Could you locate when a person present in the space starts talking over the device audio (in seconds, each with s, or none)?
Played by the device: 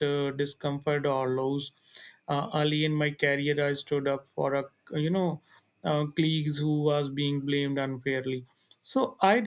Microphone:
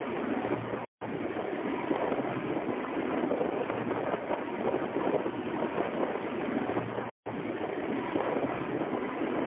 none